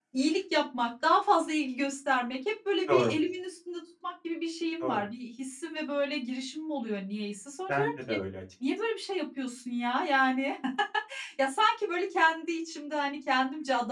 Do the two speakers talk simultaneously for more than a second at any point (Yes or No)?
No